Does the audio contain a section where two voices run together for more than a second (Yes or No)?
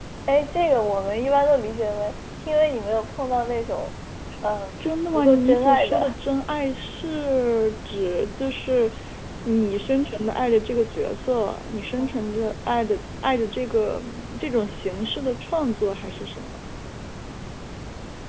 Yes